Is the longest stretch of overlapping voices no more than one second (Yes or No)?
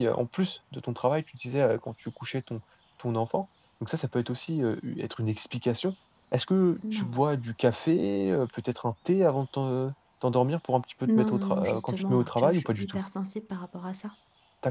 No